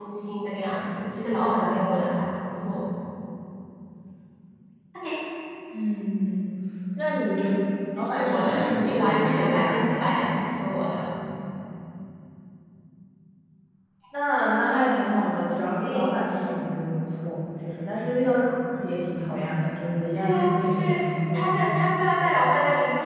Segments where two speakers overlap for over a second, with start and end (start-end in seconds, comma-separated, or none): 8.0-9.9, 20.2-21.8